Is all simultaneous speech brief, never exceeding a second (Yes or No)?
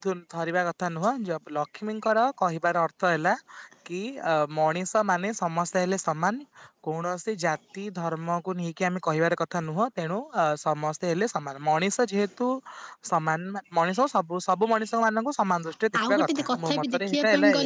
No